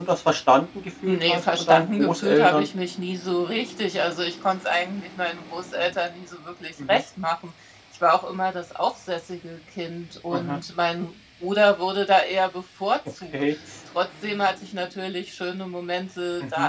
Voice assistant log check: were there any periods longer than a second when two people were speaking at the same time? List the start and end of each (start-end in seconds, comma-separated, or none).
1.1-2.7